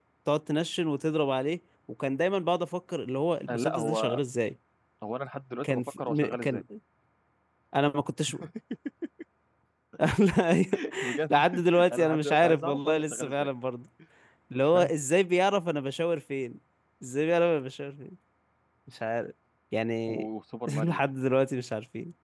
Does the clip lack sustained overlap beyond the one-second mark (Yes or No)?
No